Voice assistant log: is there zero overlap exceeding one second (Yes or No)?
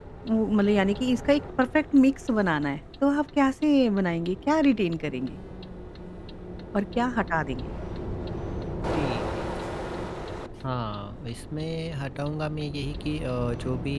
Yes